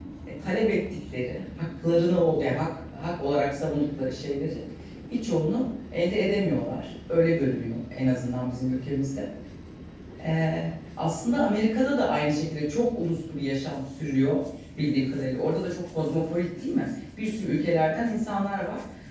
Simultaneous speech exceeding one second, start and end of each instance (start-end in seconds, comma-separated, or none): none